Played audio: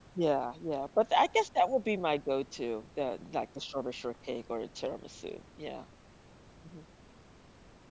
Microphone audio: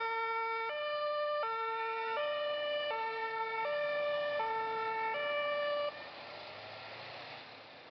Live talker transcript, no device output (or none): none